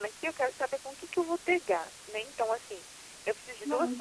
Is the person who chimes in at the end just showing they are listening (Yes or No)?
Yes